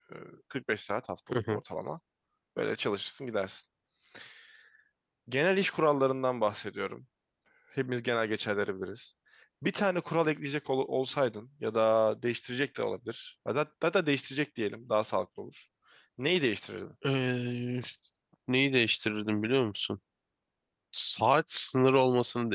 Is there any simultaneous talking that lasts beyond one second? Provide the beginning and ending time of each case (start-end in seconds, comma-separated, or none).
none